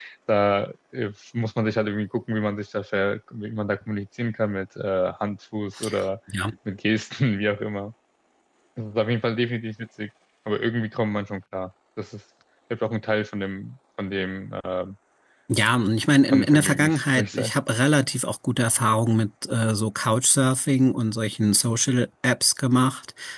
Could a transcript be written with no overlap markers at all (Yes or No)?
No